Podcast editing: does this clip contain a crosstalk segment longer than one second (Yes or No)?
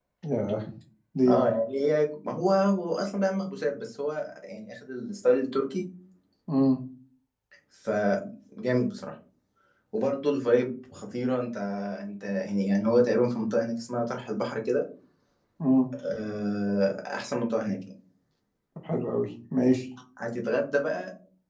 No